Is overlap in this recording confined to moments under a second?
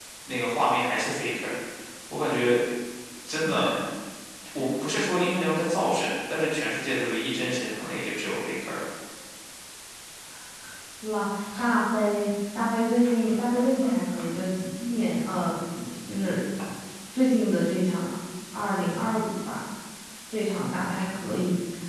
Yes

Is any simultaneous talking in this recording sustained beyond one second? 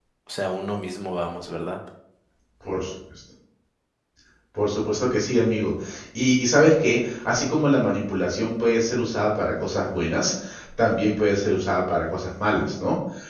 No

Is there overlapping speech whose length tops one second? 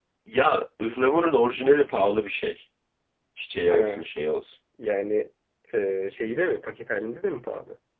No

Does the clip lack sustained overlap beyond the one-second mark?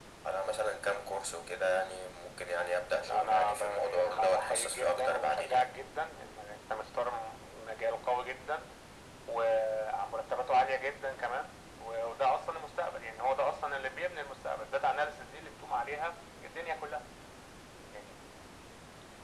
No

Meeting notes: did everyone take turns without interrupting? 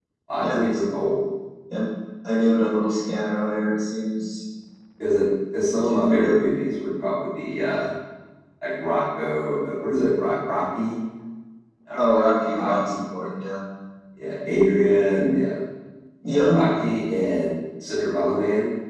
No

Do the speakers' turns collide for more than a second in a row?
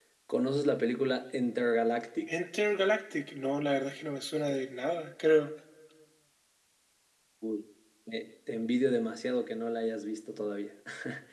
No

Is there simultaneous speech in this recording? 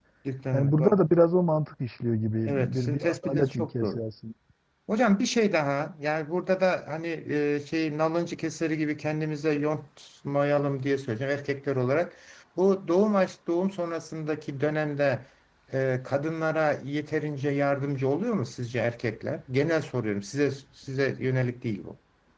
Yes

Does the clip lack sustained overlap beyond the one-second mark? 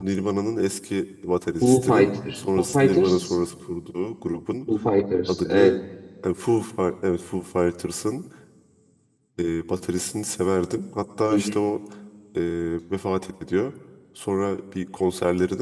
No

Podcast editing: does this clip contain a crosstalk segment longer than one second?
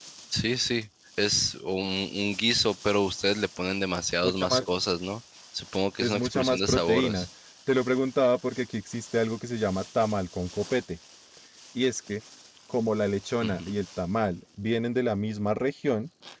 Yes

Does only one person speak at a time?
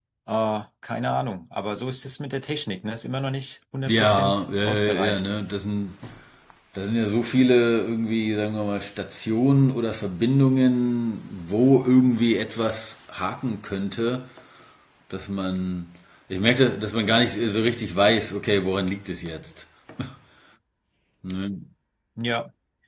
No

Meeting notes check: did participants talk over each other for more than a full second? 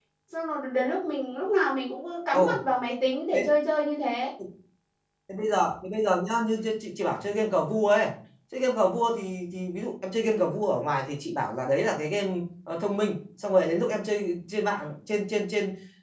No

